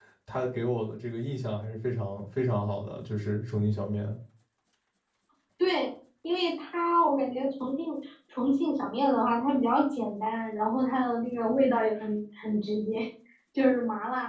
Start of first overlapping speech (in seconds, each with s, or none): none